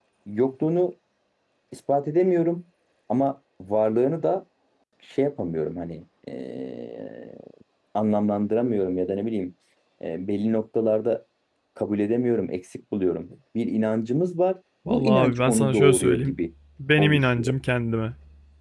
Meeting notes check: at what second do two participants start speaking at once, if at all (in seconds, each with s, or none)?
14.9 s